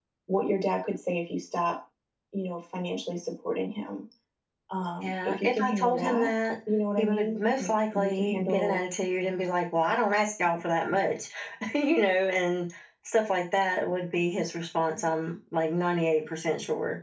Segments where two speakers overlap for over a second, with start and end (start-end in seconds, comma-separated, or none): 5.0-6.3, 7.0-8.8